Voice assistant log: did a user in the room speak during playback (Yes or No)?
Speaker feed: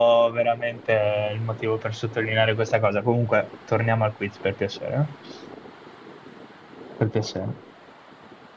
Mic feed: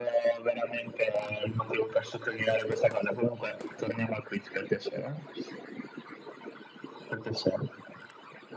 No